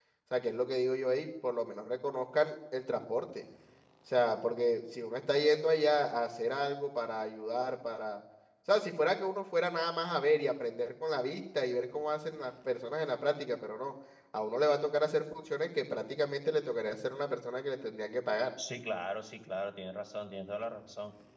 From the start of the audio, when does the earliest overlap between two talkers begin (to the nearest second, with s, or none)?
none